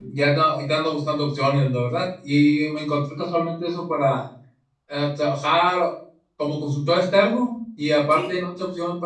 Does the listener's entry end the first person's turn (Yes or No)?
No